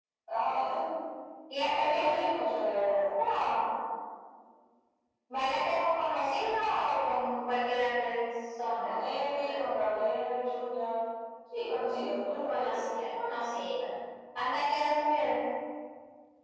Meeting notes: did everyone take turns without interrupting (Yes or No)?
No